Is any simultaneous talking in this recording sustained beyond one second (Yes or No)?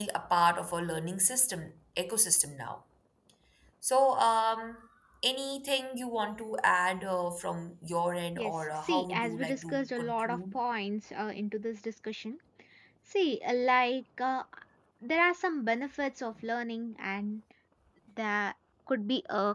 Yes